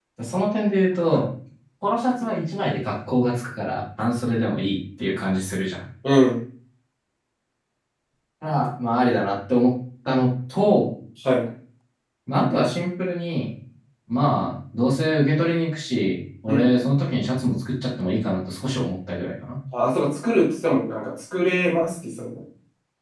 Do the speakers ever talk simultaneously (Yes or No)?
No